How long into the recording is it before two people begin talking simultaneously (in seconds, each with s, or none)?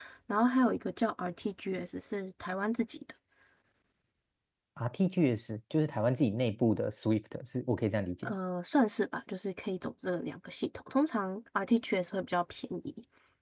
none